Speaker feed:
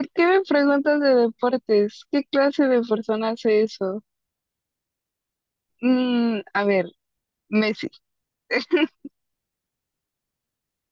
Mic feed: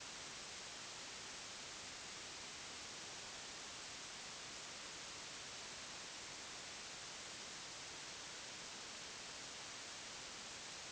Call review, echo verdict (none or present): none